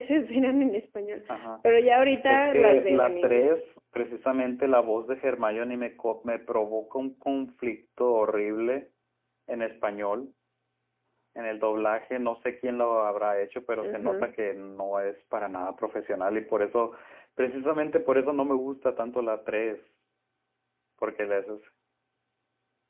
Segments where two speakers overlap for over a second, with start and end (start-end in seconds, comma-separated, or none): 2.3-3.6